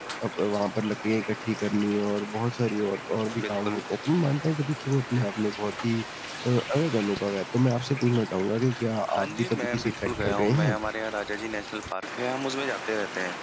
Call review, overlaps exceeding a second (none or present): present